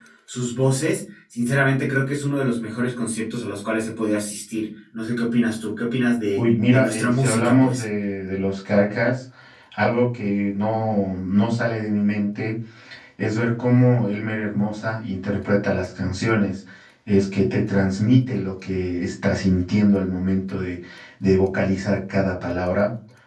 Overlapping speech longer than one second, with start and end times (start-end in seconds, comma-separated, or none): 6.4-7.8